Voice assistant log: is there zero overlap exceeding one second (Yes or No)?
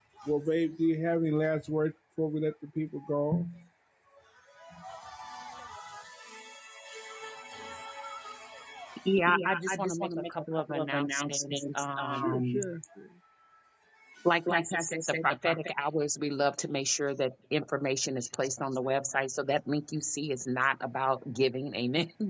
No